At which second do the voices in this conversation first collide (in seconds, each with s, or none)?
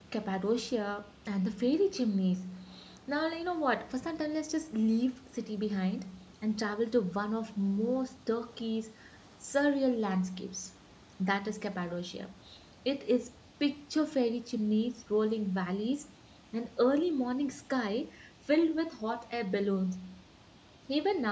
none